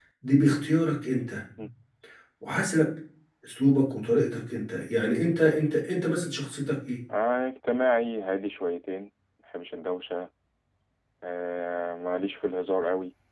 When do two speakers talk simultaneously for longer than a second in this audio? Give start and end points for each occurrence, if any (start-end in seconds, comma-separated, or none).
none